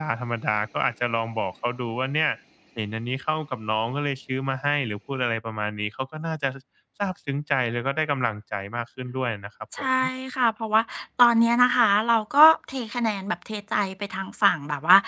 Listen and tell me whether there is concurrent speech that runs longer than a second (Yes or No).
No